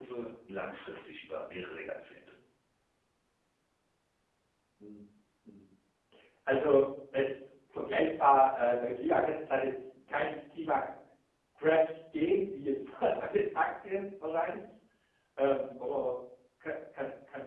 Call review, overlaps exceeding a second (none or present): none